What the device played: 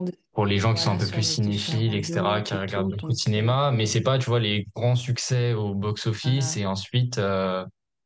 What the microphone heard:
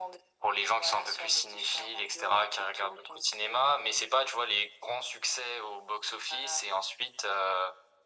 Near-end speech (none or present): none